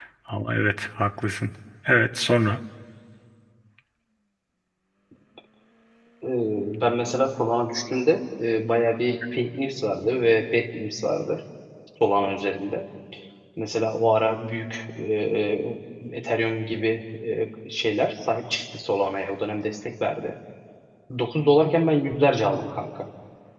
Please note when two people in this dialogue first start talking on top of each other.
none

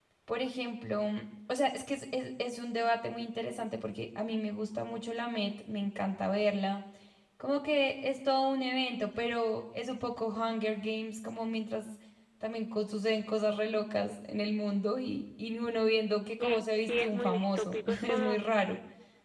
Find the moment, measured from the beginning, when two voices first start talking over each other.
16 s

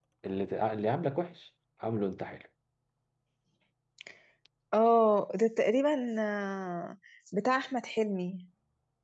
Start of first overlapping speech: none

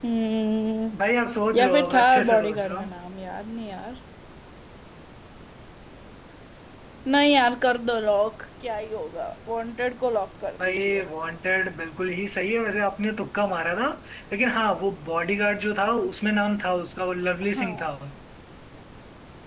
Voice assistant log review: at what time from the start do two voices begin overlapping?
2 s

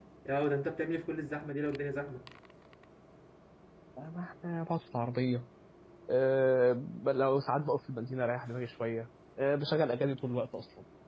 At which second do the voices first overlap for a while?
none

